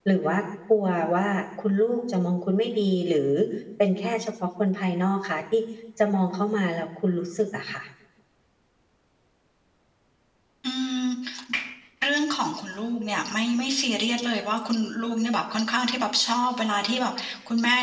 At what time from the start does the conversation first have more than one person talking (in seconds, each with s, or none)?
none